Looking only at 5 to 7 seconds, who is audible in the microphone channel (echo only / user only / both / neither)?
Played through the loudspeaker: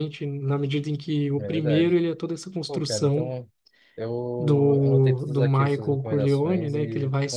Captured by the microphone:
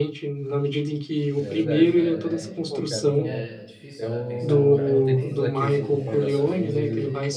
both